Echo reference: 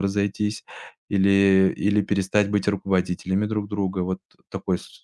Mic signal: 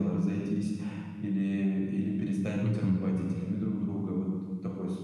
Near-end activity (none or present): present